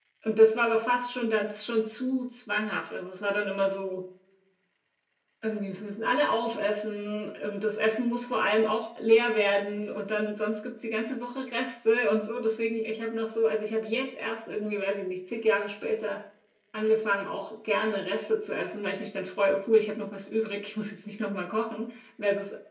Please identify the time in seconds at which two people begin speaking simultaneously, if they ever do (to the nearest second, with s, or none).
none